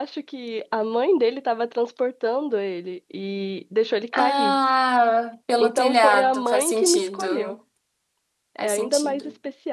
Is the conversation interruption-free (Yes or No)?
No